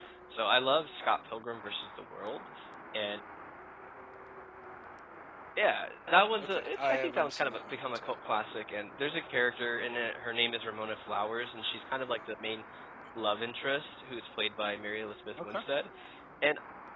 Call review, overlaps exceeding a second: present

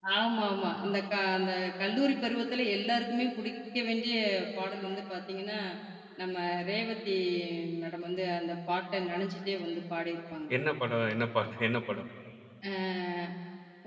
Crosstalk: none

